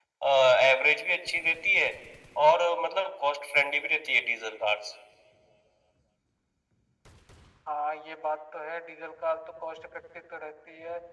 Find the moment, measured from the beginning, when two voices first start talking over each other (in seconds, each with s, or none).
none